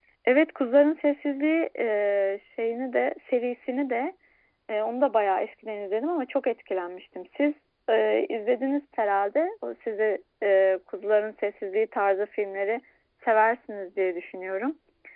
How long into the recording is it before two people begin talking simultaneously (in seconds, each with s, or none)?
none